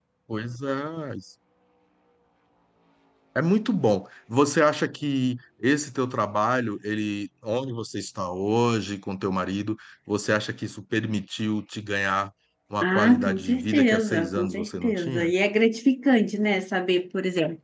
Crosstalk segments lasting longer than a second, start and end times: 12.8-15.3

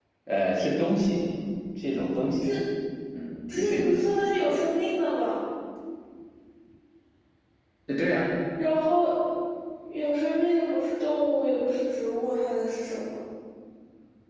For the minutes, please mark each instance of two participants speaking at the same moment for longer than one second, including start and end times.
none

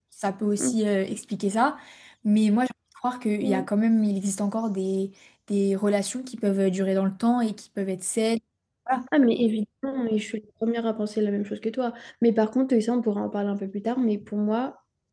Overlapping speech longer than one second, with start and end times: none

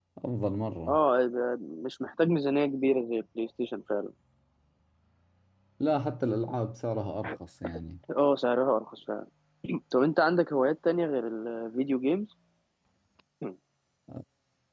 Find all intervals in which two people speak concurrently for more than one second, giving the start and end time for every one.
none

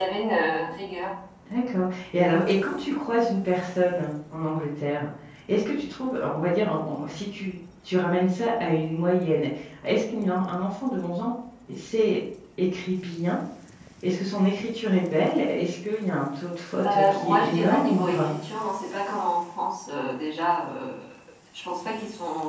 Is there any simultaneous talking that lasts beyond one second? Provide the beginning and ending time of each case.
16.9-18.3

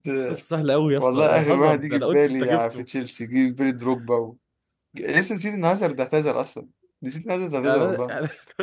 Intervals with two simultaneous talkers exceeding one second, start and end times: 1.0-2.9

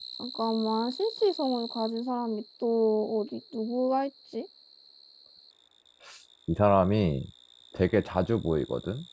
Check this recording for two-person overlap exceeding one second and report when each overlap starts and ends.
none

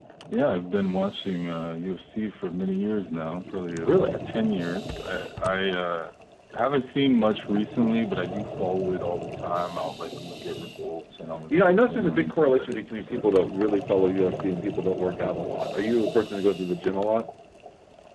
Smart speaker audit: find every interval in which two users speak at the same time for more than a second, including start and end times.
11.5-13.3

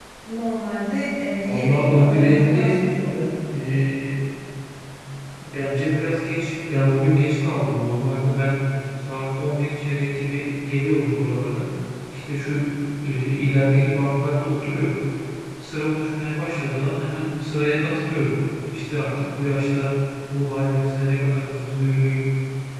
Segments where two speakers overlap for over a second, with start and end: 1.4-2.7

